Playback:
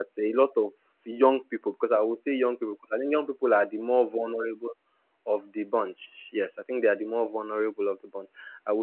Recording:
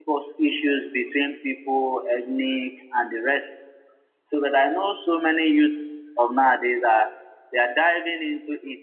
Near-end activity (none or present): present